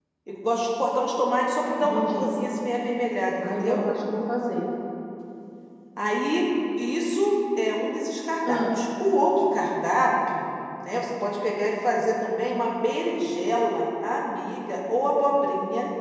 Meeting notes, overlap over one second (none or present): none